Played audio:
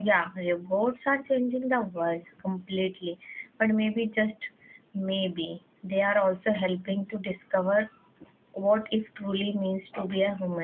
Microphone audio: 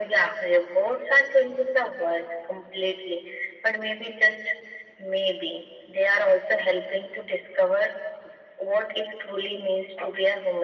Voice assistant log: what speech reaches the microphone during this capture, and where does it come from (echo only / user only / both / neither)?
echo only